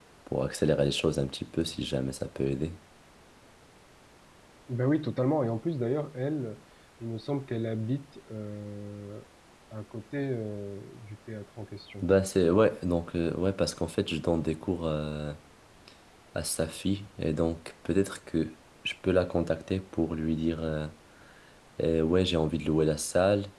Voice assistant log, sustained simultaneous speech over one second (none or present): none